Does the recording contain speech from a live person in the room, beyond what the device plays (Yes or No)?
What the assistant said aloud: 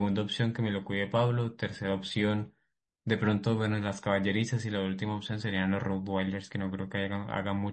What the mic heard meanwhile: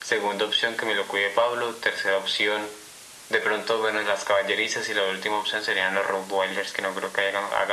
No